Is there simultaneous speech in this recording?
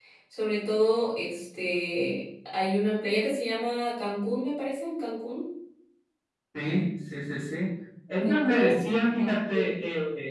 Yes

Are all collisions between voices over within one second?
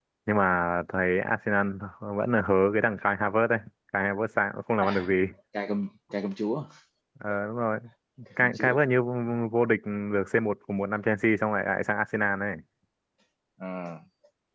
Yes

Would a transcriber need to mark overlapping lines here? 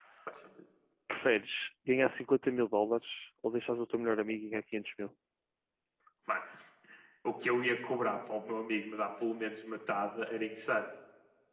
No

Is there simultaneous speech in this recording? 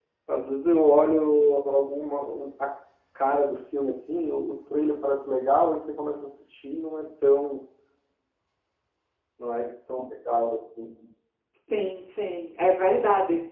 No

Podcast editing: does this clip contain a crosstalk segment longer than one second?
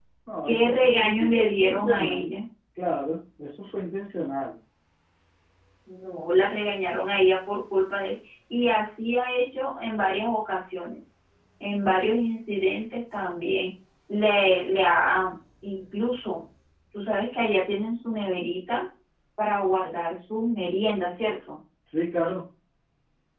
Yes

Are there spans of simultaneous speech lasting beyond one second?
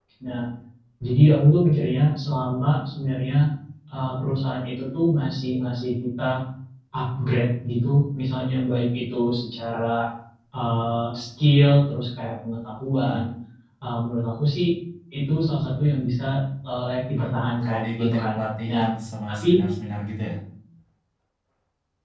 Yes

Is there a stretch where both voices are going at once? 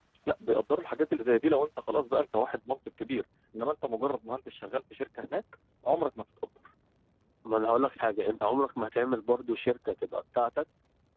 No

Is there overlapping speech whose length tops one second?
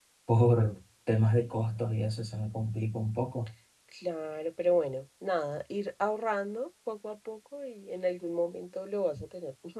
No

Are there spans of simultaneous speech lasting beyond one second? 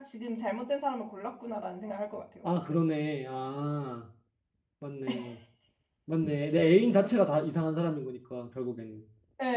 No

